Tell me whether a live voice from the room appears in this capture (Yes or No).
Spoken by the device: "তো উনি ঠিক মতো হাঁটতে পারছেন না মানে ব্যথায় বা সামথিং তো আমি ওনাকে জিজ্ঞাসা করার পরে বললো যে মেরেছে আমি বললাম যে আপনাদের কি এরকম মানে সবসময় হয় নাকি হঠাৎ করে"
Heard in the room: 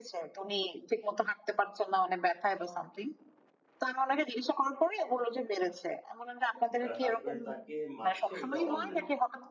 Yes